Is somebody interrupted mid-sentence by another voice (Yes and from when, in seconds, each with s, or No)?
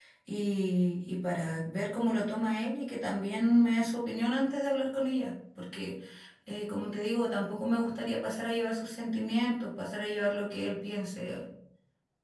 No